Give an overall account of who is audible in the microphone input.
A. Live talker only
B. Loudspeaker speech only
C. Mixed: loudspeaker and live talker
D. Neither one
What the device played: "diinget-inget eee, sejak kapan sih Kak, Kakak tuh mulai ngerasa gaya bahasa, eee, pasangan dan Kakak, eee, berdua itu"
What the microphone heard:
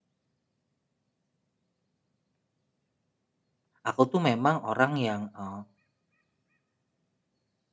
A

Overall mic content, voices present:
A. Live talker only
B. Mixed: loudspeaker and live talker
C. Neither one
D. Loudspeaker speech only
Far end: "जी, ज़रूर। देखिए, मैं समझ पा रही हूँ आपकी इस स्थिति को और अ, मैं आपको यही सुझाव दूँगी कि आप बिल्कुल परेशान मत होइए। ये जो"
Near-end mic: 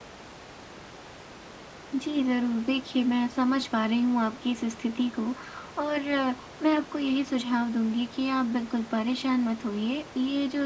D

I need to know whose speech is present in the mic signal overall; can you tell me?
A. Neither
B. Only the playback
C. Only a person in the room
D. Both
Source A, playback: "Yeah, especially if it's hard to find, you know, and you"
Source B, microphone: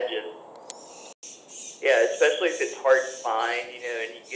B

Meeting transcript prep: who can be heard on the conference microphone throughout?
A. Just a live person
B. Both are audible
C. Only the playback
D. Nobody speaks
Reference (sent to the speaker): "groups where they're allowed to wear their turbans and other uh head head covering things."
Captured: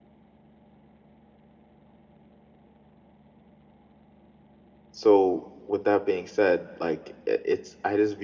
A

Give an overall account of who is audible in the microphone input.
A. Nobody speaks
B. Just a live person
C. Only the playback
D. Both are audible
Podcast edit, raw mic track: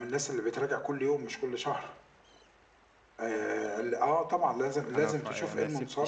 D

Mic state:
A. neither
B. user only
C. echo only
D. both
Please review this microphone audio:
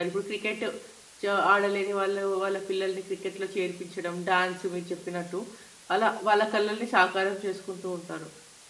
B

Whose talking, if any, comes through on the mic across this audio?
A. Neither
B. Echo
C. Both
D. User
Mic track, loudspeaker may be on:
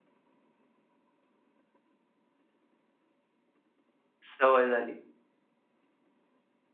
D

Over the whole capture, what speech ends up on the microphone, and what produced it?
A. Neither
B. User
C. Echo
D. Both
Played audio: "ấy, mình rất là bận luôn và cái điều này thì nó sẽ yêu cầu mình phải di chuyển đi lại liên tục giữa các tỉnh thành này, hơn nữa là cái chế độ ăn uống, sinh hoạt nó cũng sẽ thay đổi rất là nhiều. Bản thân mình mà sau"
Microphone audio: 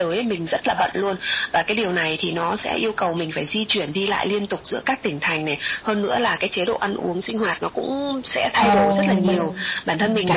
D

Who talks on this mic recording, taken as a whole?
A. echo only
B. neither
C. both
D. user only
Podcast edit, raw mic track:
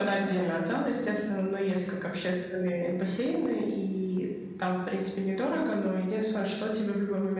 A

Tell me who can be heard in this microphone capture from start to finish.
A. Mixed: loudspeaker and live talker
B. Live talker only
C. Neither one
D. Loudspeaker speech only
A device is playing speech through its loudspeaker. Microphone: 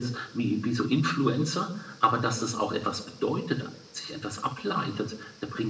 D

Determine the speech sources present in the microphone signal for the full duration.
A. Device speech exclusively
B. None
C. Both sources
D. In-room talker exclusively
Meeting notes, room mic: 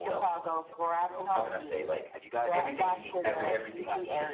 C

